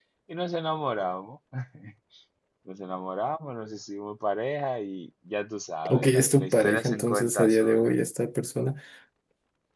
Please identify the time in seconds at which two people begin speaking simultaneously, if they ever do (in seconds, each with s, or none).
5.8 s